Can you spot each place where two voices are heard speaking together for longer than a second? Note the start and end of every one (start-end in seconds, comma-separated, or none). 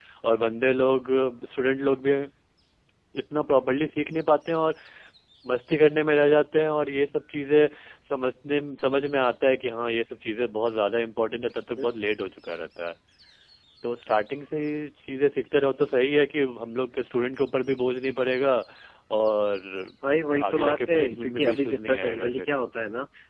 20.5-22.4